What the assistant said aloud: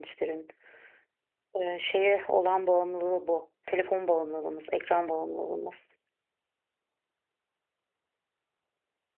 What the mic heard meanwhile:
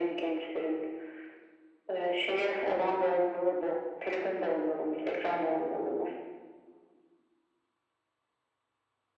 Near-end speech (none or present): none